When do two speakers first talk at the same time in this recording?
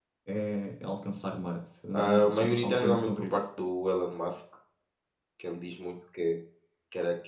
2 s

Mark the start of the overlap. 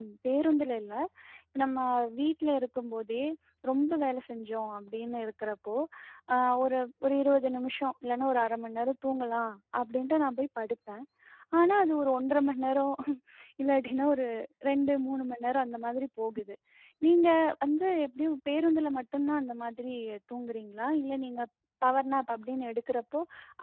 none

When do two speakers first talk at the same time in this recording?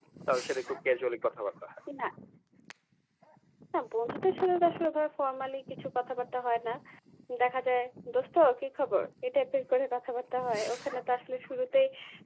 none

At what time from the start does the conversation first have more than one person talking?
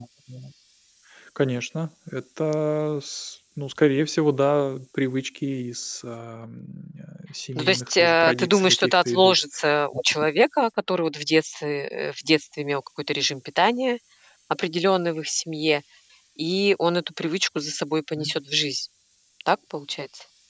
8 s

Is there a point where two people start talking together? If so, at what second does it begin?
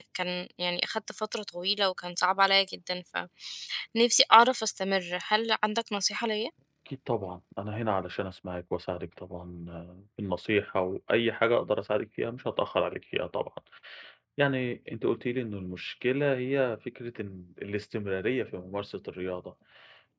none

